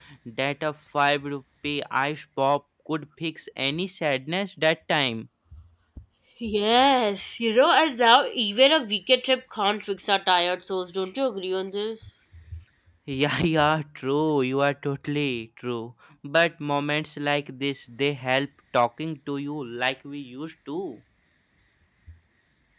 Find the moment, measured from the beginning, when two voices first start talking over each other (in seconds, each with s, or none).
none